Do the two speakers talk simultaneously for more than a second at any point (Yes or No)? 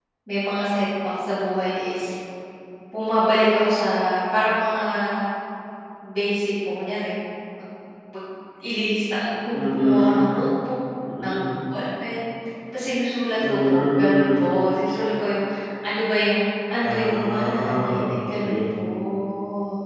Yes